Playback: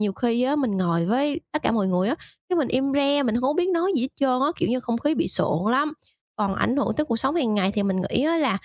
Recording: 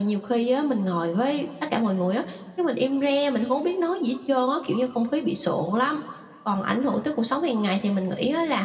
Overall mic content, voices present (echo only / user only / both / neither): echo only